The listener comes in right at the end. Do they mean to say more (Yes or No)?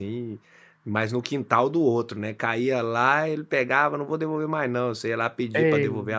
No